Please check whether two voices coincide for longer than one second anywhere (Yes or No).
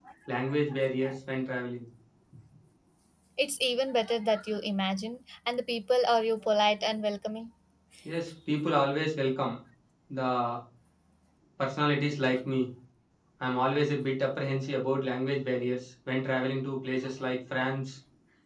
No